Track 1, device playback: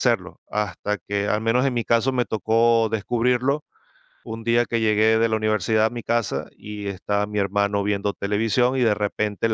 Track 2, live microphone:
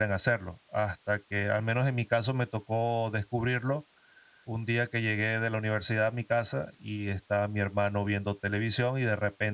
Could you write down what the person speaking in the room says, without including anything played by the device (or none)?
none